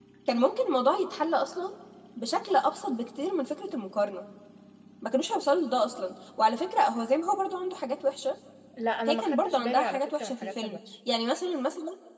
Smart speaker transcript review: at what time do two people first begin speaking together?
9.1 s

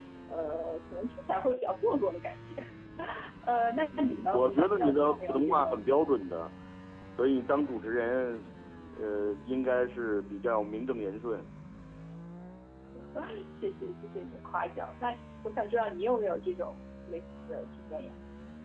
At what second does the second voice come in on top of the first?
4.0 s

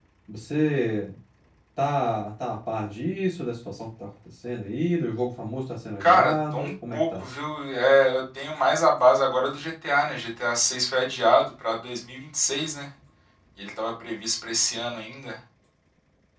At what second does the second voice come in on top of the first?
6.0 s

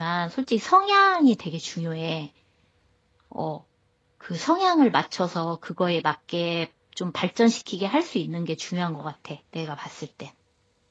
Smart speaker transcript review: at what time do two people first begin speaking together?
none

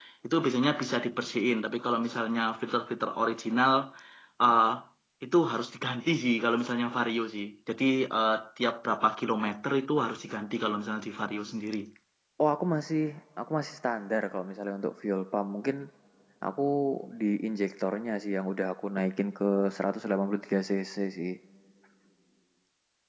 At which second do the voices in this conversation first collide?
none

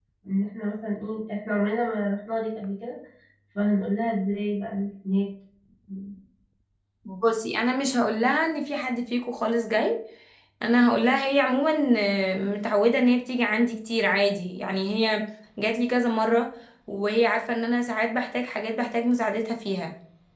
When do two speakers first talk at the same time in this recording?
none

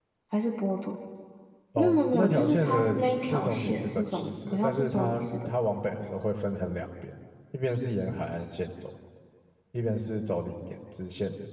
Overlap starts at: 1.8 s

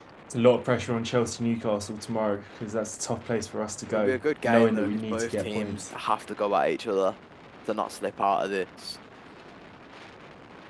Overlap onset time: 3.9 s

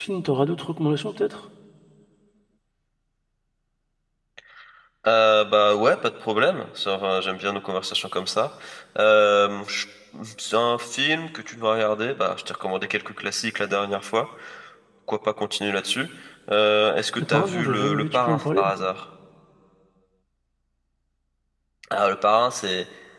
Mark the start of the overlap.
17.2 s

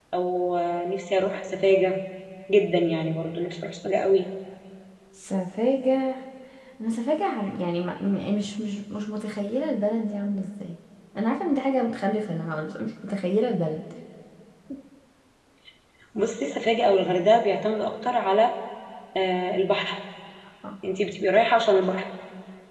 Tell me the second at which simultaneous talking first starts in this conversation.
none

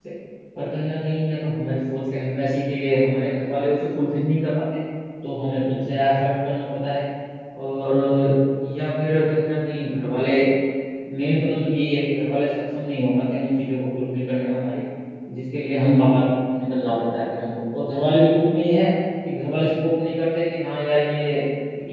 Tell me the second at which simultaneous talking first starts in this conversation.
none

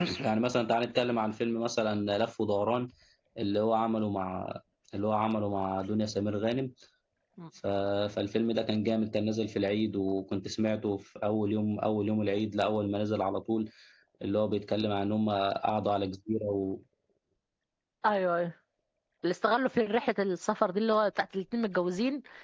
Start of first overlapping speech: none

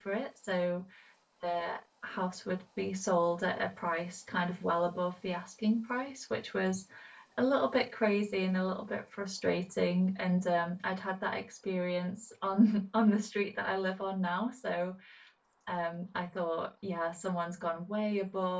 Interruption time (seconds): none

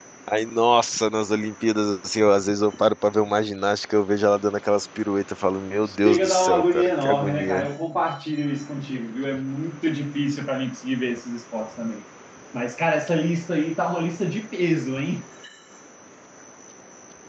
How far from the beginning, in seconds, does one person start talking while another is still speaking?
5.9 s

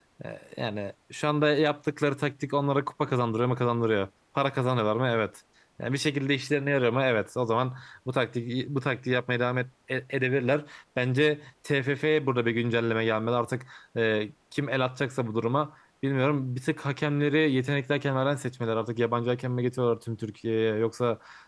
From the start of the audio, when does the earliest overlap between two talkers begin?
none

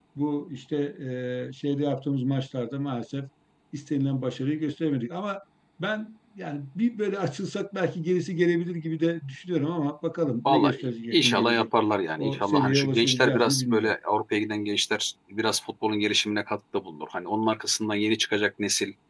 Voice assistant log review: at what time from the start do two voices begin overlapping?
10.4 s

